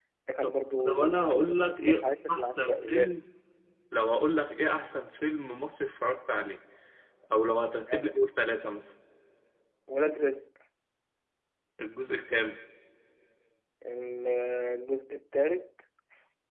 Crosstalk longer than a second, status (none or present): present